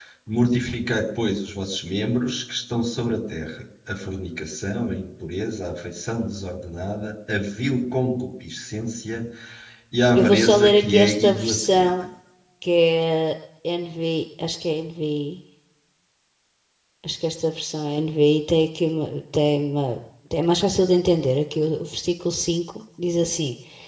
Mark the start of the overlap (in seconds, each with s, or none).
10.2 s